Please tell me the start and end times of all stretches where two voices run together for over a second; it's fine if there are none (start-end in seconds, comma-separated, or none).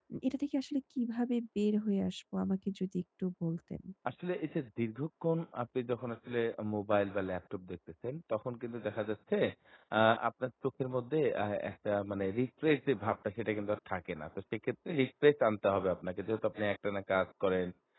none